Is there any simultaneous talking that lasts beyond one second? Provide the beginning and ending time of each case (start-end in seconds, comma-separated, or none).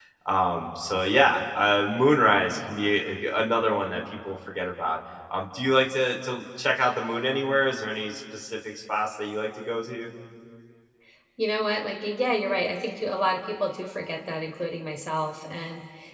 none